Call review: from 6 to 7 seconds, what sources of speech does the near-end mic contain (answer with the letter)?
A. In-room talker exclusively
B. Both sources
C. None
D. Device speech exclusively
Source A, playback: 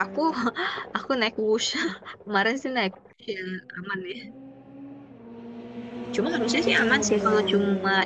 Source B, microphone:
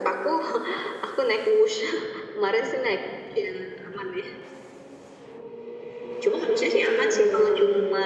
D